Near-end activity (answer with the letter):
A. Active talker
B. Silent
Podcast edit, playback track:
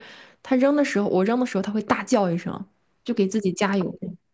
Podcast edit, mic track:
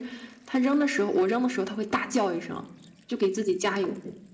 B